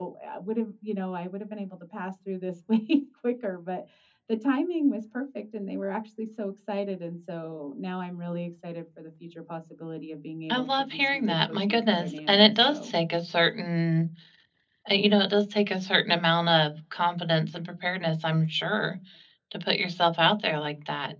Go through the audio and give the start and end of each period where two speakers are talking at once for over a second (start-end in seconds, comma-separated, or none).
10.5-12.9